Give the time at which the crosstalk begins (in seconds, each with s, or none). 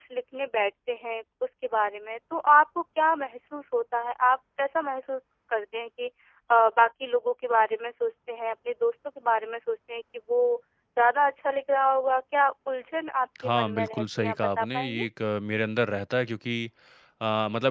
13.3 s